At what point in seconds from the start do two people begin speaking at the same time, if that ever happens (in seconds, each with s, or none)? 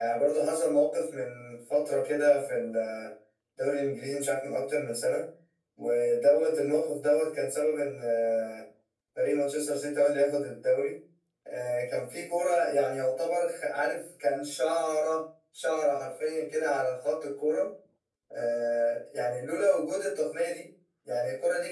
none